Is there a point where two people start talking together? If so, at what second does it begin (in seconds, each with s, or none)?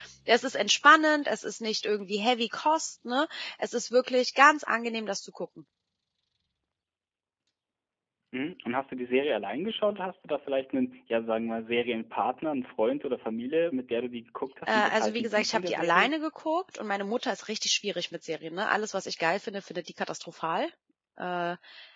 14.7 s